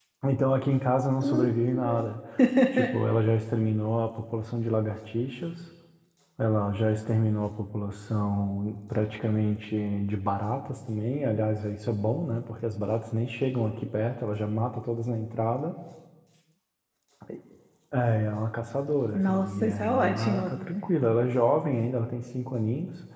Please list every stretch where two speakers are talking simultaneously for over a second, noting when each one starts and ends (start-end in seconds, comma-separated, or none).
19.1-20.5